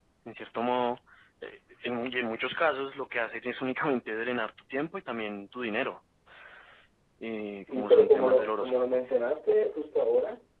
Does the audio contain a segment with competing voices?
Yes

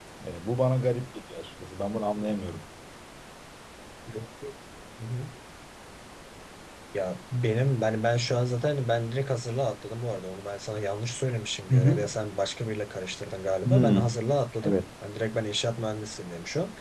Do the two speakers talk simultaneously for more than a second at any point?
No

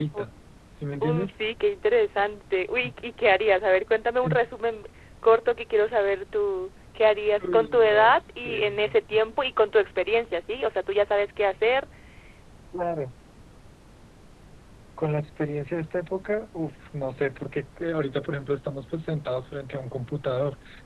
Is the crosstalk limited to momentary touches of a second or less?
No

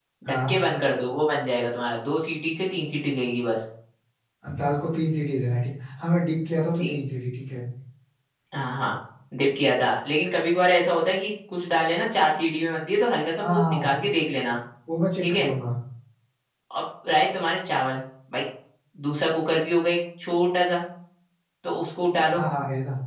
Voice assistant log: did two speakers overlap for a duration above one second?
No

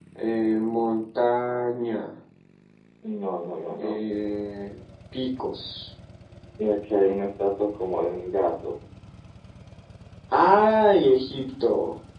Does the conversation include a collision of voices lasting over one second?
No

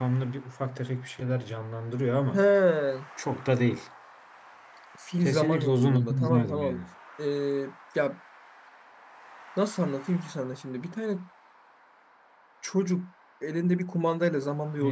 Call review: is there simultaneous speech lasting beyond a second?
Yes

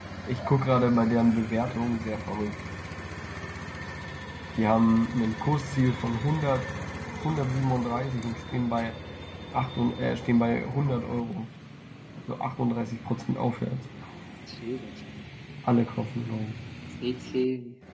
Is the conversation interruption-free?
Yes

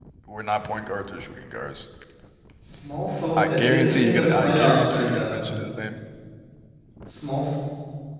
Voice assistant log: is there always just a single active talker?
No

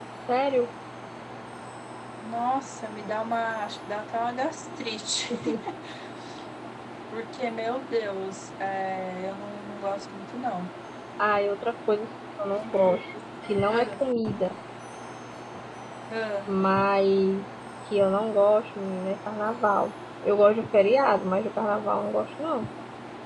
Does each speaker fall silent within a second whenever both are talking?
Yes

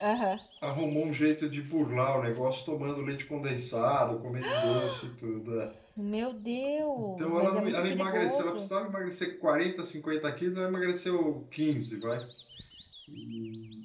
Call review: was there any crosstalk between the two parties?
Yes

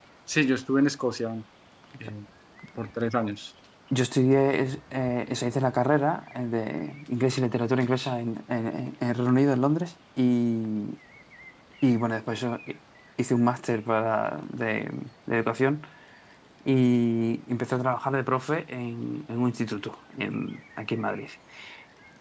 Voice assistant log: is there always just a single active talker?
Yes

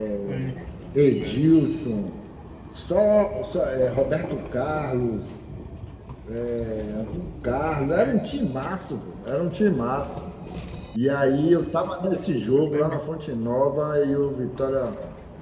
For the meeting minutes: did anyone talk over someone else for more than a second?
No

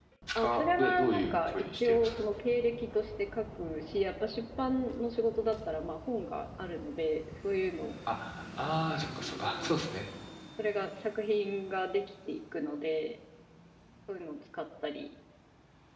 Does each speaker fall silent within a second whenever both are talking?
No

